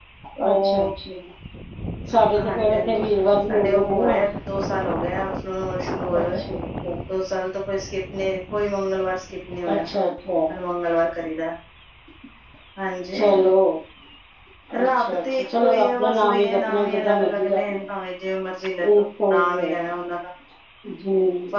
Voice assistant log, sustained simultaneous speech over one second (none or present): present